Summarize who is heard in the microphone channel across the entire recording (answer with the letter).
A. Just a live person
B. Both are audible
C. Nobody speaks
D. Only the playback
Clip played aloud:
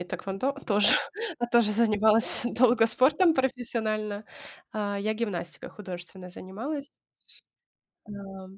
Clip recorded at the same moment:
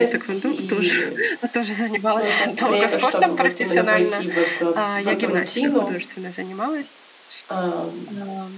B